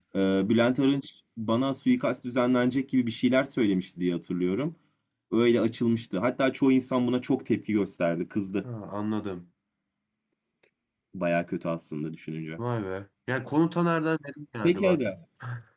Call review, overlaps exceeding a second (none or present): none